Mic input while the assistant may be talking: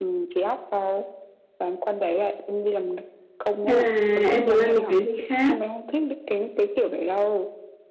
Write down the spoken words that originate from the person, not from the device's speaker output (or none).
hay là em muốn làm một cái gì khác